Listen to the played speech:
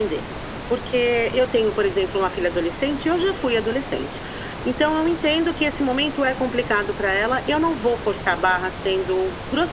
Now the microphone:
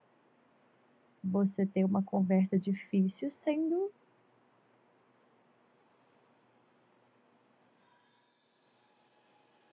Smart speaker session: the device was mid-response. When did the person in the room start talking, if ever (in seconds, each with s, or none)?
1.2 s